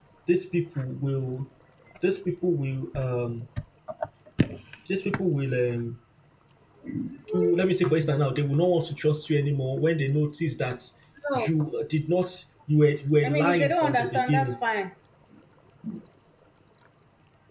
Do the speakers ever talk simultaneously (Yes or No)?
Yes